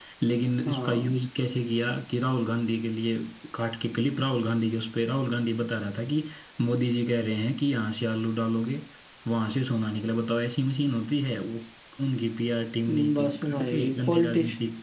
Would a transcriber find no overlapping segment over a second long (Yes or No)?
No